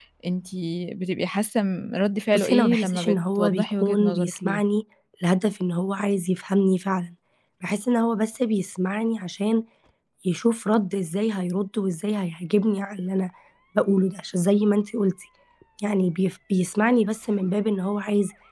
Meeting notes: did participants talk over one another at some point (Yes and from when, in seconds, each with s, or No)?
Yes, from 2.3 s